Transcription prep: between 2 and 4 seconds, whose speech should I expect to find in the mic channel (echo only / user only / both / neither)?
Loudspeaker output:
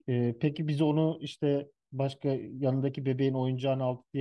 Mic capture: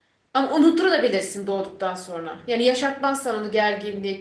user only